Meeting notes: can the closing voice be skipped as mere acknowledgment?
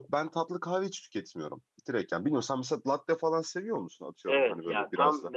No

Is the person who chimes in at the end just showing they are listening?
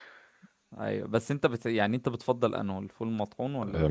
No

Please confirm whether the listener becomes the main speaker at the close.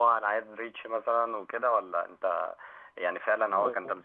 No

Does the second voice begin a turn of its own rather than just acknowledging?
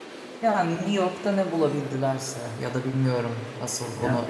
No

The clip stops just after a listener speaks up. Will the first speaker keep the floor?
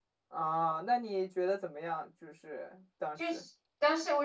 No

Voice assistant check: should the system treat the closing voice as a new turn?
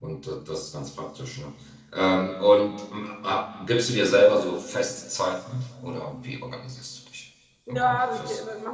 Yes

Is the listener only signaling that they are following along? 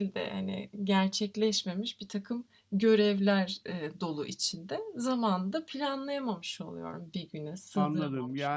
No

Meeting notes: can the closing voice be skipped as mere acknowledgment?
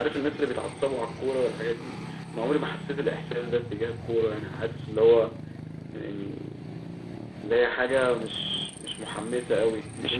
Yes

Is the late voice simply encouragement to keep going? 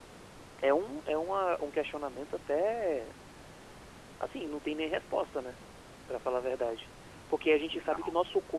Yes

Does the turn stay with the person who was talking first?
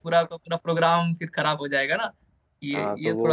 No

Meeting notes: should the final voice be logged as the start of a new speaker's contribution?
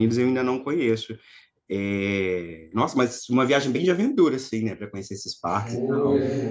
Yes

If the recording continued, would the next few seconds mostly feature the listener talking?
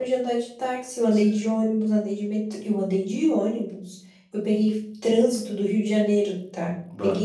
No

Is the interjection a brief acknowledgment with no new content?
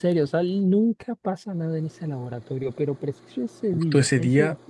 No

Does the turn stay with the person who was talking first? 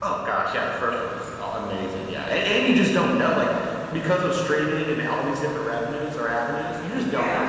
Yes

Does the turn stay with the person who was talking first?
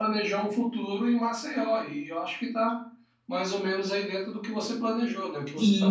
No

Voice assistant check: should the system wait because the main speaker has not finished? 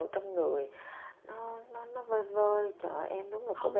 No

